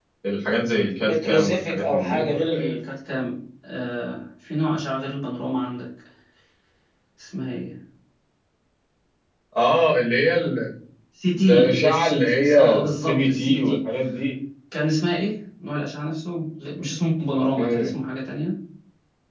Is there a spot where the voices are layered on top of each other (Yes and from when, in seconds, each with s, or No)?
Yes, from 1.0 s